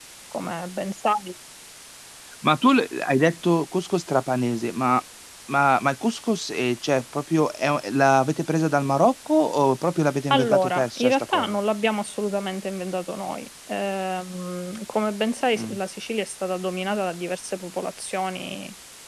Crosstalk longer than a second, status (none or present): present